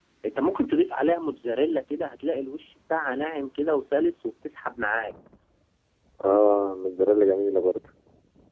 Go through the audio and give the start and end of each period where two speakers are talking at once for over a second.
none

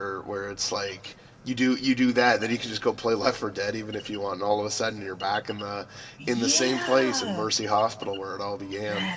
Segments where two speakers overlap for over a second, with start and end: 6.3-7.5

